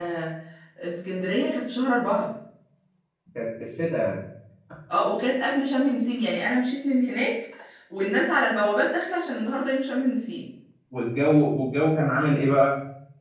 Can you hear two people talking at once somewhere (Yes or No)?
No